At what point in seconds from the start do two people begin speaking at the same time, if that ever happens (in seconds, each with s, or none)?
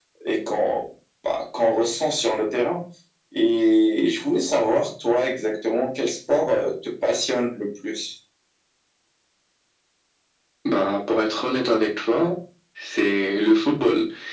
none